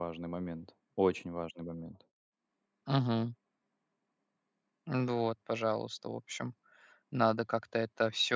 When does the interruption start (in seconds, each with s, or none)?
none